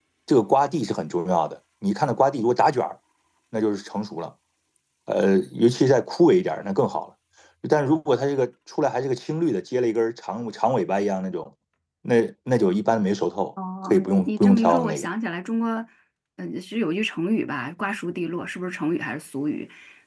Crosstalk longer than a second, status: present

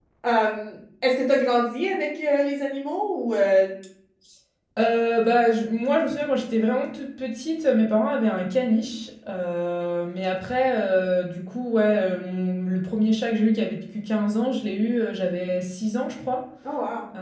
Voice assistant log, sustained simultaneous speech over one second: none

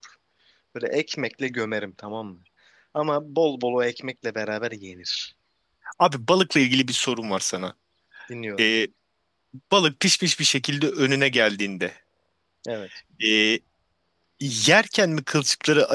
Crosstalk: none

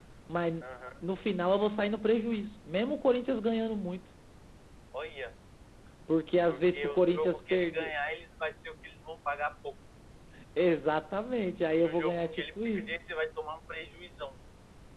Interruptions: present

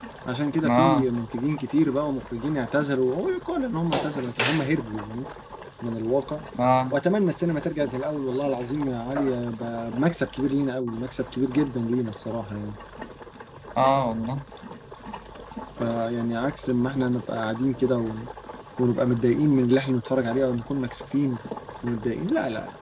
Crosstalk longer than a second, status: none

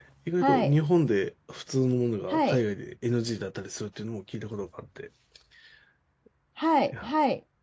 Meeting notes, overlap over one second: none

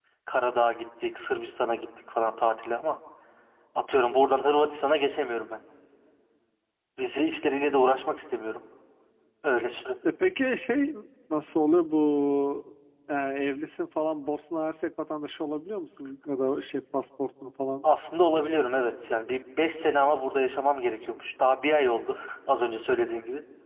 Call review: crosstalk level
none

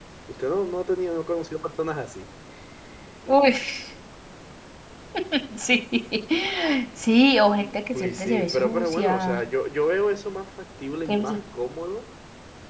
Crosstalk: present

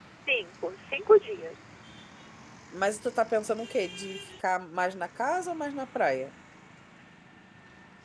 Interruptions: none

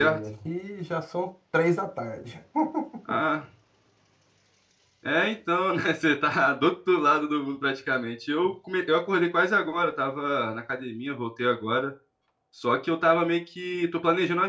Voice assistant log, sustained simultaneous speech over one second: none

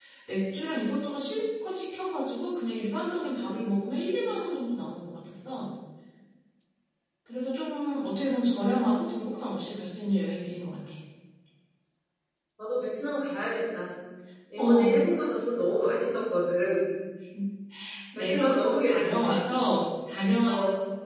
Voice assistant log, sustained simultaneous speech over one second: present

